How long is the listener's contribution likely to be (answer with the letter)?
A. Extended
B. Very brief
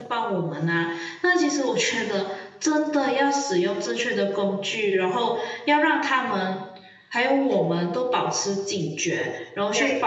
B